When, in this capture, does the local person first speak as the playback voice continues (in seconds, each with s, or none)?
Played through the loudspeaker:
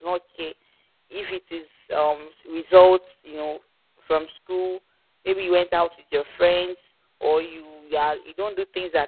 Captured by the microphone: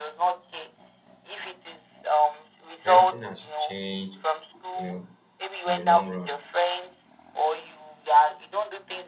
2.8 s